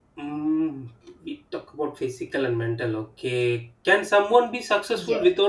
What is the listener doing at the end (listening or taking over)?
listening